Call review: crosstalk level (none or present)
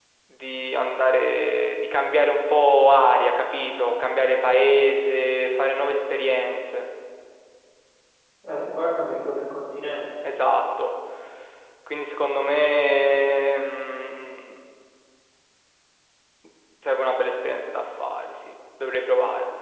none